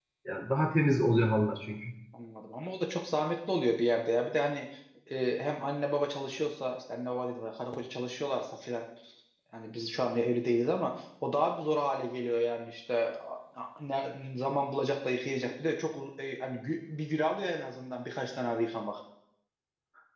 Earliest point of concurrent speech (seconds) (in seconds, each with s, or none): none